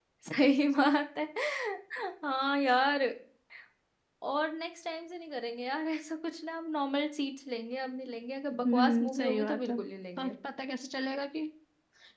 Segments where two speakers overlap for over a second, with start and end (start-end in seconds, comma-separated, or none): 8.5-9.8